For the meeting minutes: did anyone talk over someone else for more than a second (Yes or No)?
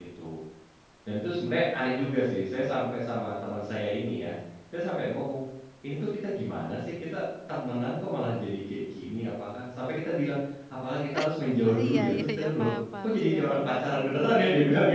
Yes